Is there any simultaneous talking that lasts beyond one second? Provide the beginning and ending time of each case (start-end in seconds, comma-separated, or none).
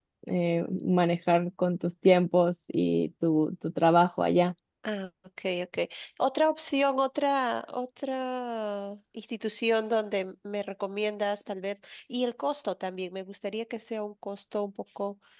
none